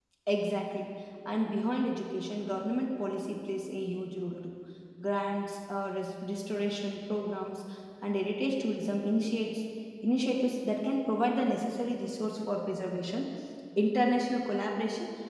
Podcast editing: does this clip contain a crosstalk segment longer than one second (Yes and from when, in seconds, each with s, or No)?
No